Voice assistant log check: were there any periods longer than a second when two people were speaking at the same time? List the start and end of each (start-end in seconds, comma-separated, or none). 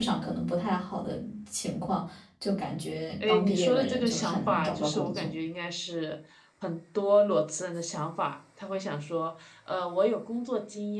3.3-5.3